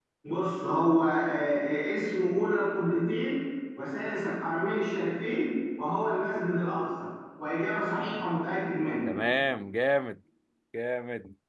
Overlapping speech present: No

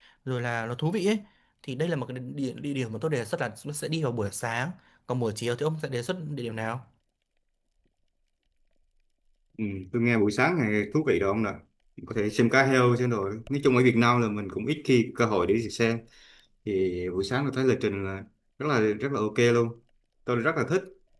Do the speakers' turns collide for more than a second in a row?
No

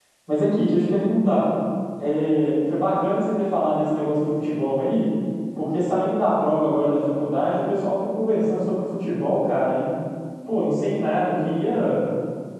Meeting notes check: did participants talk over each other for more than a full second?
No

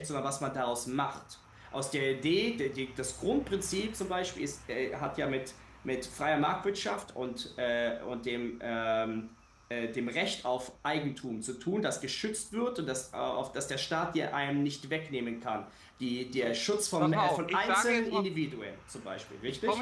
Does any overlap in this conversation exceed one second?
Yes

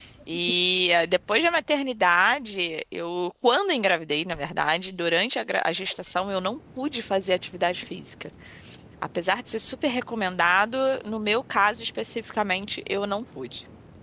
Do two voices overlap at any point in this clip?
No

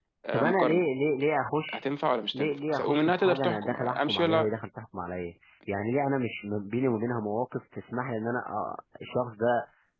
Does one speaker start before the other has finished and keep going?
Yes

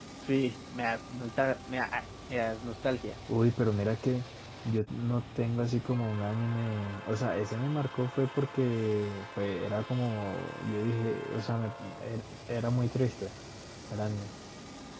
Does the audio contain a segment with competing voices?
No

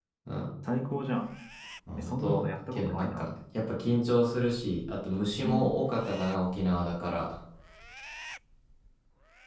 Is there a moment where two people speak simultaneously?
Yes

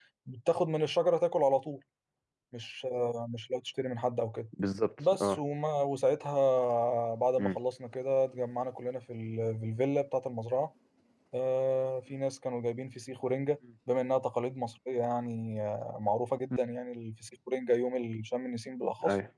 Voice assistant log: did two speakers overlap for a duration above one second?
No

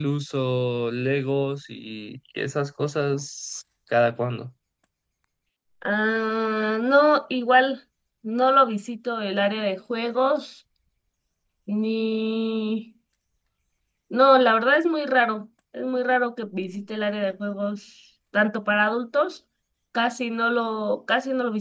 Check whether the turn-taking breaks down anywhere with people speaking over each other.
No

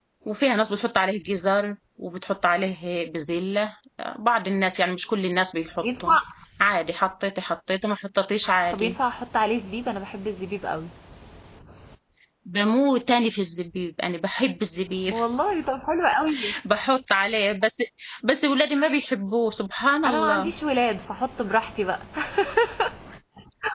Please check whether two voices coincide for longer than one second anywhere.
No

